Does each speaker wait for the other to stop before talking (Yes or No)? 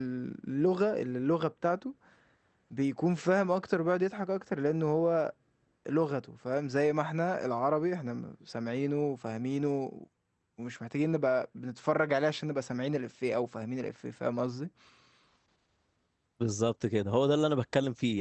Yes